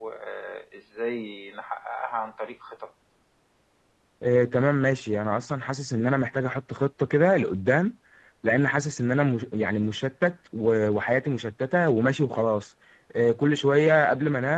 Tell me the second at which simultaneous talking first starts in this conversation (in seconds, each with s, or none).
none